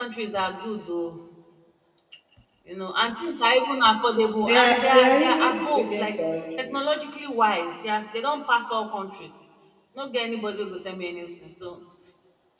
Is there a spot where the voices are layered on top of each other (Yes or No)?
Yes